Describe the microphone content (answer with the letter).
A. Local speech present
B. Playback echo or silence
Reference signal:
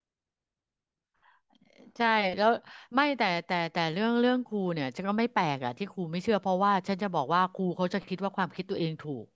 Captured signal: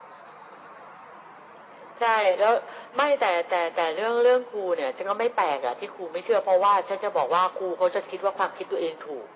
B